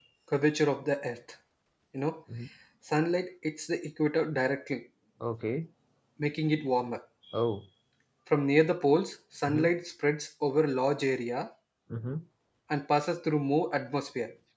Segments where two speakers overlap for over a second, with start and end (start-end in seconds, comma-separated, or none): none